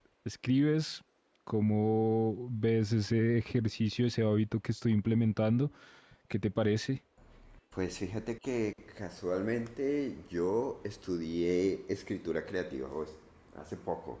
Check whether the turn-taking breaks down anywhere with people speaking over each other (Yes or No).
No